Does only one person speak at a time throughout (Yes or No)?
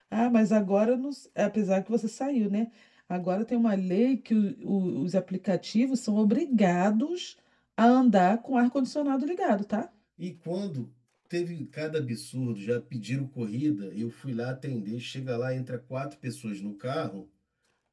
Yes